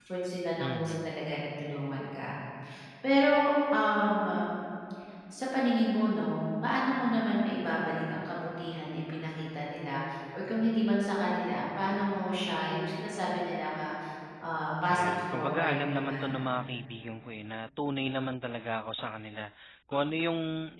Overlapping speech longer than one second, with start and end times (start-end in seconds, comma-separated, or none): 14.9-16.3